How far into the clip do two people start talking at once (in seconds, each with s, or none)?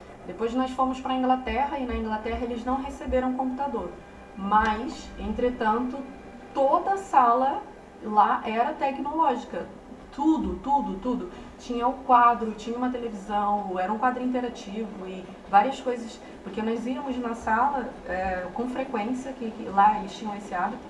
none